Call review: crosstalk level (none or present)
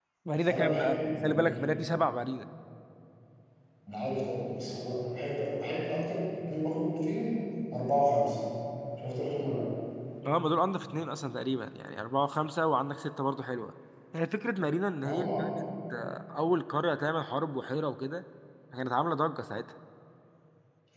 present